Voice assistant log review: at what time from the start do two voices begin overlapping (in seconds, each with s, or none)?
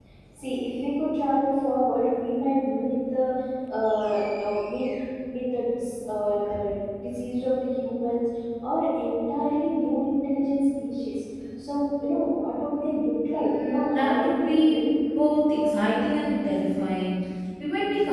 13.4 s